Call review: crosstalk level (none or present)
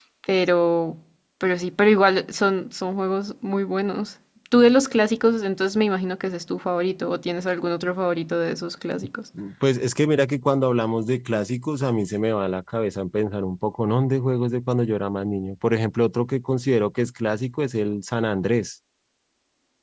none